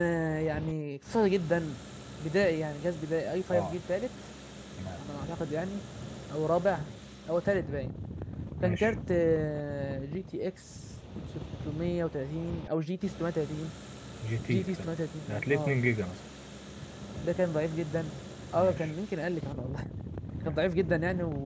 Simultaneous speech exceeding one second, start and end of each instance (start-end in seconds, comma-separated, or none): none